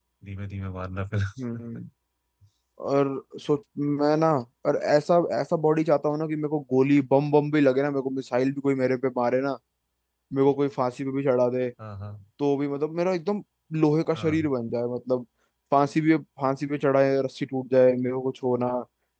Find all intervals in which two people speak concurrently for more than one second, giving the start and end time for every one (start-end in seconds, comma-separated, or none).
none